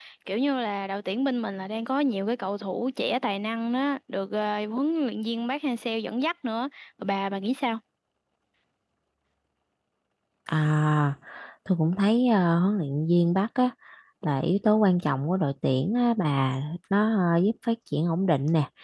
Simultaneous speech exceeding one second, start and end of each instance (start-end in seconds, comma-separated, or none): none